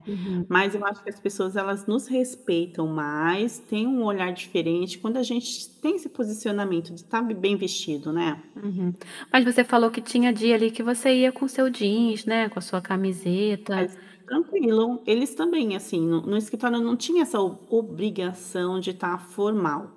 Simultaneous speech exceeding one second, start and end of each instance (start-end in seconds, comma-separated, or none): none